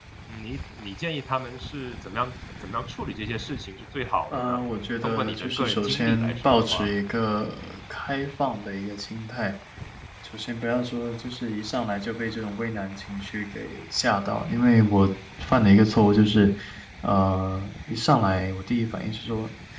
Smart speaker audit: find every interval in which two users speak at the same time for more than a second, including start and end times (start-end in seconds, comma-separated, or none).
5.0-6.9